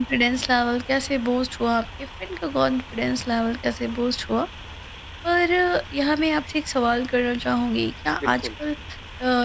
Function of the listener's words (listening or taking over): listening